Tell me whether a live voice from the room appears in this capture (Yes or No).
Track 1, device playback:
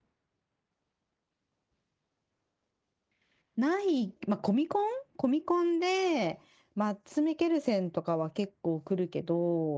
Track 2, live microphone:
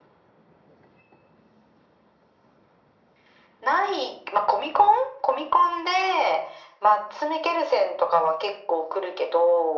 No